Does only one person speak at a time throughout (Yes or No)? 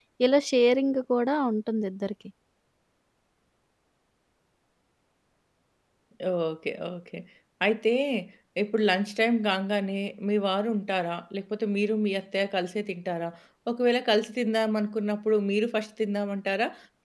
Yes